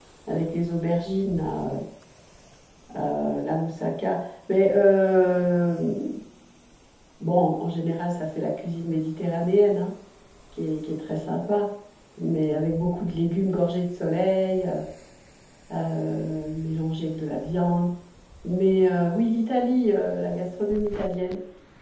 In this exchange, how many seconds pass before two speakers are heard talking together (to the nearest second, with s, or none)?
none